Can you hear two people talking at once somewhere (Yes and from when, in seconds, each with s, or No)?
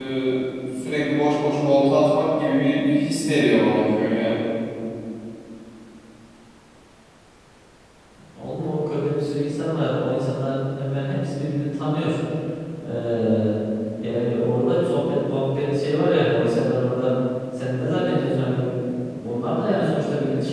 No